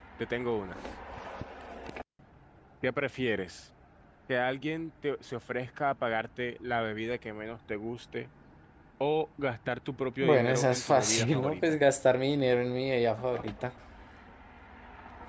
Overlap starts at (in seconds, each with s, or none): 10.2 s